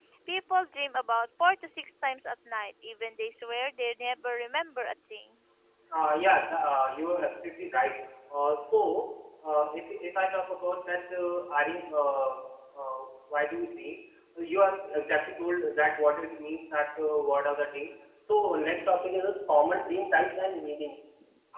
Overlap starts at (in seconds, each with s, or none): none